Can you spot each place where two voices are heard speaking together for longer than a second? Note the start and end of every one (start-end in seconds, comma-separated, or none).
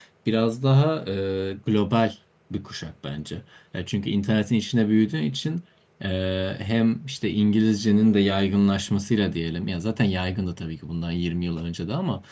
none